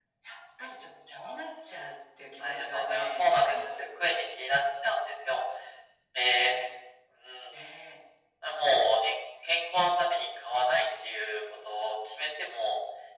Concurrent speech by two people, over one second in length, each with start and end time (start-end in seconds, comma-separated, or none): 2.4-3.8